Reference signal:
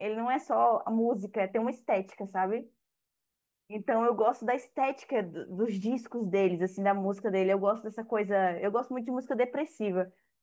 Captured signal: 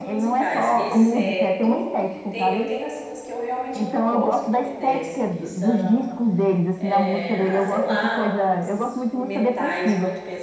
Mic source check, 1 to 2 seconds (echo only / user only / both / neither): both